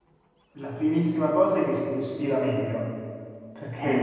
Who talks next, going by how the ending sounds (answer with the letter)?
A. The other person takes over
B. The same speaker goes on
B